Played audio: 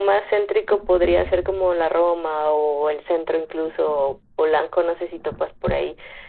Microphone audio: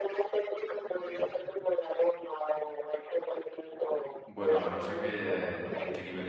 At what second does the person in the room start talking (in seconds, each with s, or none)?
4.3 s